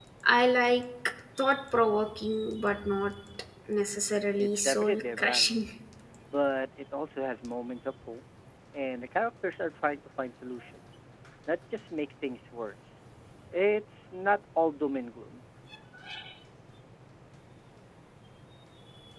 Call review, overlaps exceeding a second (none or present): present